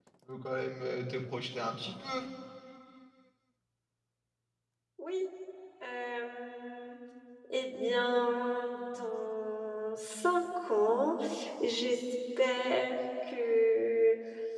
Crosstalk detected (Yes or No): No